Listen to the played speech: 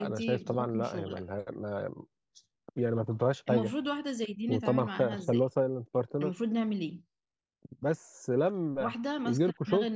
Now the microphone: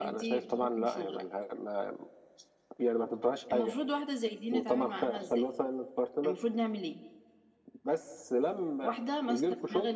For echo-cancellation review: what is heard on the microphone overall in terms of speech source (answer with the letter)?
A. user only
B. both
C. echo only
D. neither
C